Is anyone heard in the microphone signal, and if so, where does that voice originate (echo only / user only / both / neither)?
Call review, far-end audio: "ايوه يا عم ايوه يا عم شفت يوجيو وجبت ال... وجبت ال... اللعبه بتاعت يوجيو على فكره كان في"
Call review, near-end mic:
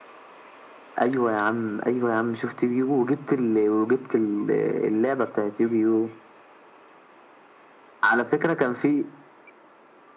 echo only